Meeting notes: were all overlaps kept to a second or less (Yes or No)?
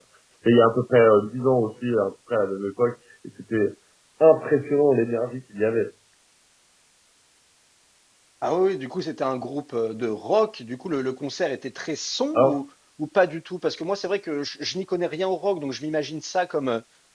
Yes